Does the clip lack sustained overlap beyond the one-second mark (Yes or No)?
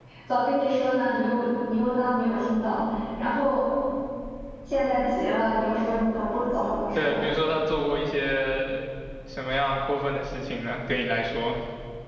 Yes